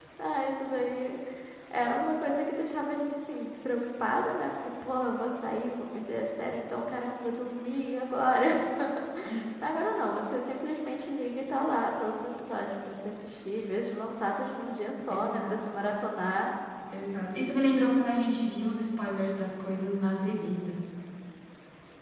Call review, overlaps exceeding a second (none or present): none